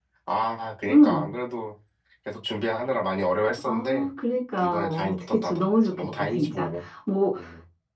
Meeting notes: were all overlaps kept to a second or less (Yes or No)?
No